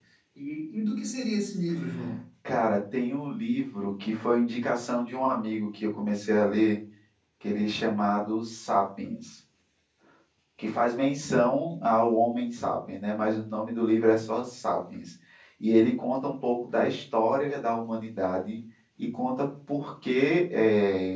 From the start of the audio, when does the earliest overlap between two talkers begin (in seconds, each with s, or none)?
none